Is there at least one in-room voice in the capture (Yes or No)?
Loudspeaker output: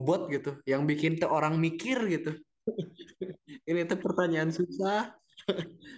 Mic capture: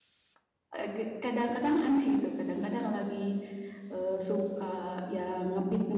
Yes